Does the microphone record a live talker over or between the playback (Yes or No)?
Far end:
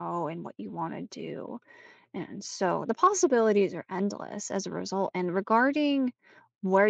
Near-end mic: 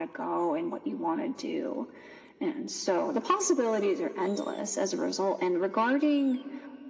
No